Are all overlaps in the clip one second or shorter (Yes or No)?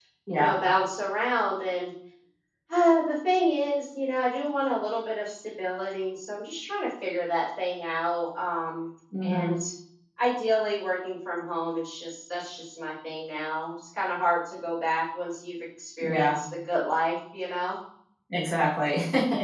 Yes